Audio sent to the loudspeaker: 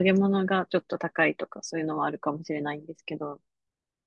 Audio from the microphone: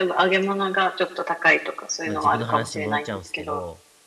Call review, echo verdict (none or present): present